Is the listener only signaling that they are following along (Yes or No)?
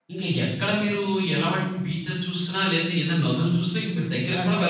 No